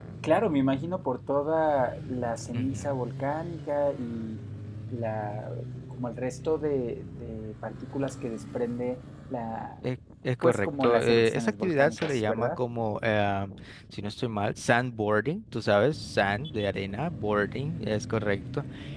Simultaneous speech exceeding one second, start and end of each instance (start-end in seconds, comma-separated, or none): 10.4-12.6